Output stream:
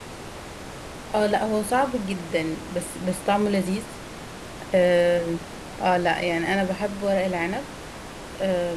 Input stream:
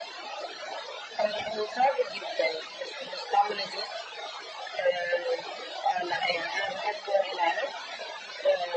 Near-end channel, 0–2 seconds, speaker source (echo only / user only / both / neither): echo only